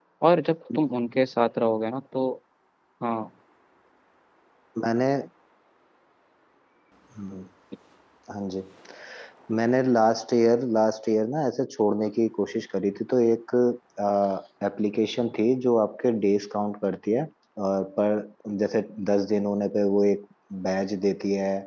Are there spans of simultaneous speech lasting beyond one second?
No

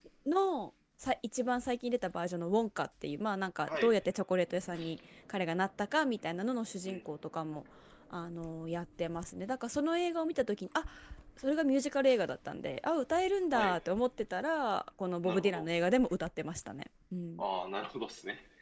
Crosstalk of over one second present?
No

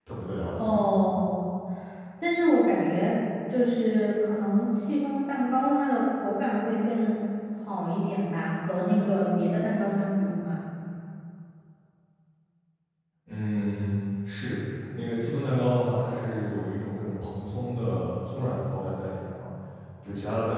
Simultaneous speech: No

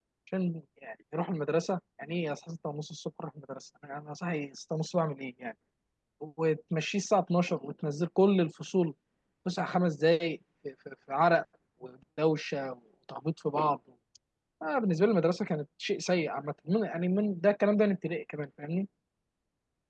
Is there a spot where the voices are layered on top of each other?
No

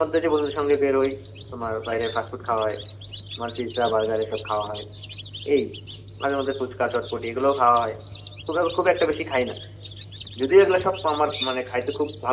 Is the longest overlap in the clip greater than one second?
No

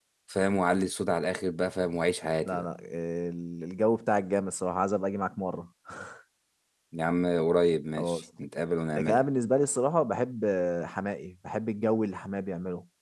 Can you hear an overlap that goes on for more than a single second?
No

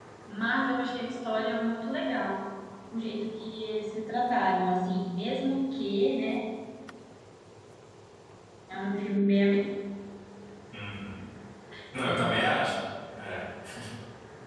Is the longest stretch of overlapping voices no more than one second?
Yes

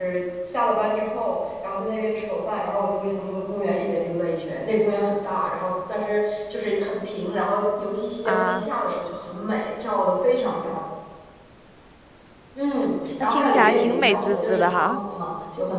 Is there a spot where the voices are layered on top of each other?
Yes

